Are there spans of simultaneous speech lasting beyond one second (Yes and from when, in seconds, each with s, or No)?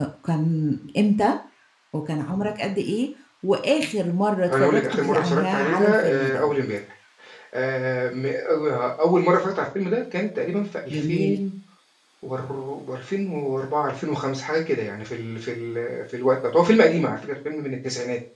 Yes, from 4.5 s